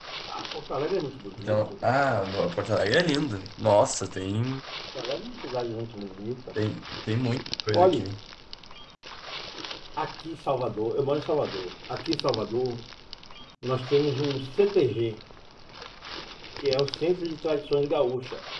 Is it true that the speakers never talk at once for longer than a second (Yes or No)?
Yes